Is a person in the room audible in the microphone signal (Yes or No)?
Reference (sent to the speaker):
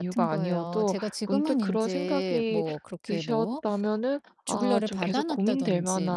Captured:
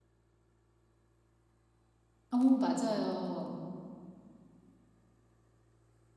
Yes